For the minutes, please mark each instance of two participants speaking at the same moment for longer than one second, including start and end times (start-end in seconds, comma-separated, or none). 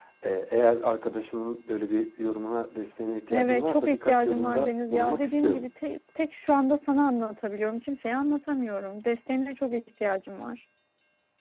3.3-5.7